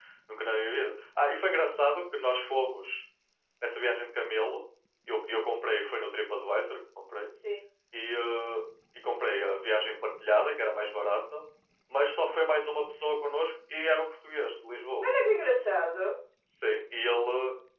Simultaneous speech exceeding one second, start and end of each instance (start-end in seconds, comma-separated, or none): none